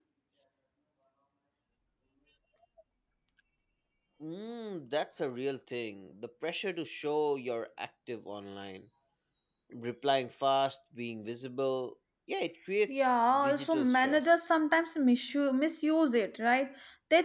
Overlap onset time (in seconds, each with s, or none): 12.9 s